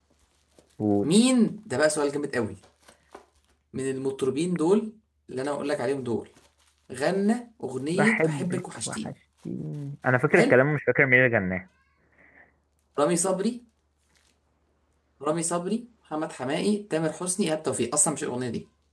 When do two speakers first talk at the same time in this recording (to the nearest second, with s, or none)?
8 s